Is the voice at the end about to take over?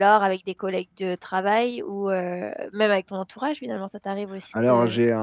Yes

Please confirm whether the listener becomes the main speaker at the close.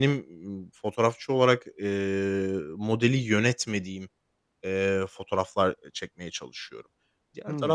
No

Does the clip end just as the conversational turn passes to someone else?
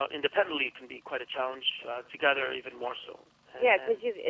Yes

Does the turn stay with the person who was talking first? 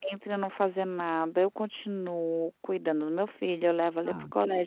Yes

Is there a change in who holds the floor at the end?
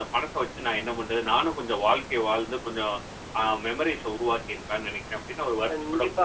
Yes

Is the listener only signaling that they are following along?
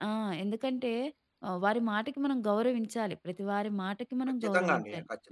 No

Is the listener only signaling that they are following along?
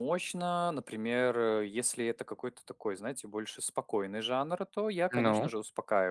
Yes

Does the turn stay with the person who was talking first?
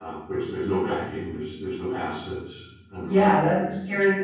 No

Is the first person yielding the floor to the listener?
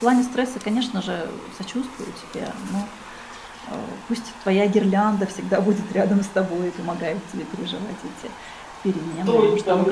Yes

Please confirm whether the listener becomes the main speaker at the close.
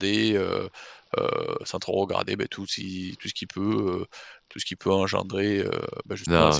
Yes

